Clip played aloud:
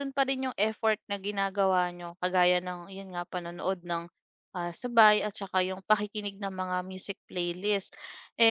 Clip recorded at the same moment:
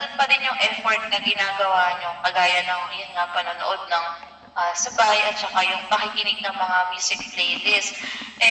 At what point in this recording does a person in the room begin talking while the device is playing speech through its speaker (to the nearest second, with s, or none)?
none